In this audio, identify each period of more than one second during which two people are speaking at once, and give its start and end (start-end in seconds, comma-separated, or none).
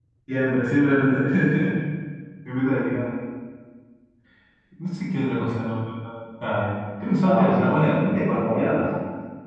7.2-8.8